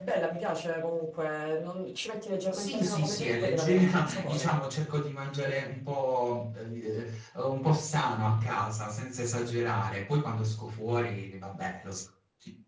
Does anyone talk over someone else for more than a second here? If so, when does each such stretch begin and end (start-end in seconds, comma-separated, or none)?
2.5-4.5